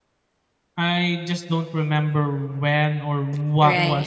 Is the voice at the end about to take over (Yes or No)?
Yes